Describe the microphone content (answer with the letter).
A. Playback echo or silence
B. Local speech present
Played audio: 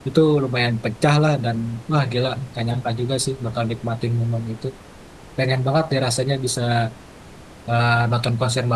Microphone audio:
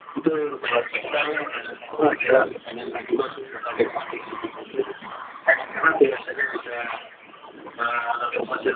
A